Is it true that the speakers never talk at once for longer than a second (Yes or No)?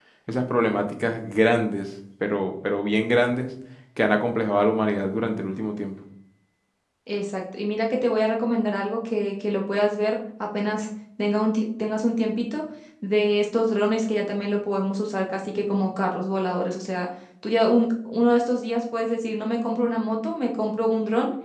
Yes